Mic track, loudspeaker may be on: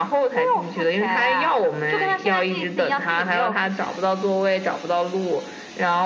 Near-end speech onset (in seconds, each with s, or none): none